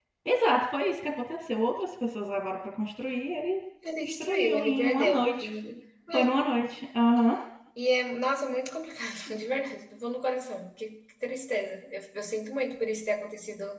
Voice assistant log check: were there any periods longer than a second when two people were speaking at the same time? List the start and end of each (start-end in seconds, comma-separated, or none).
4.0-5.5